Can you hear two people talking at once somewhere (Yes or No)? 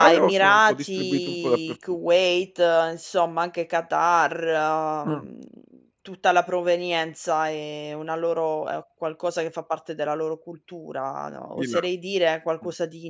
Yes